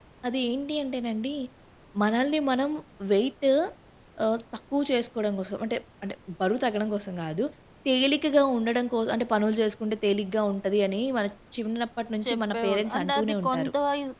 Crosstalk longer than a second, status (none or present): present